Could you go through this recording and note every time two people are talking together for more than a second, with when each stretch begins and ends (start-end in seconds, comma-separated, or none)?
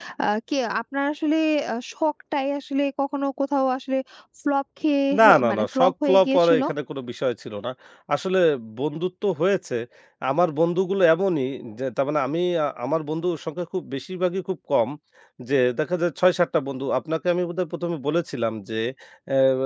5.2-6.6